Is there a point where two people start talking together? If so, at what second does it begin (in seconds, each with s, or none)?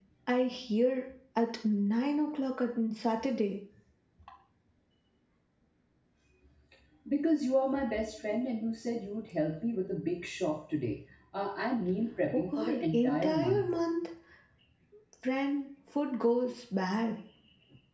12.3 s